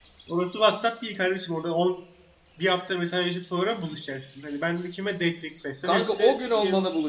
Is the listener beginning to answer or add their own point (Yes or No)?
Yes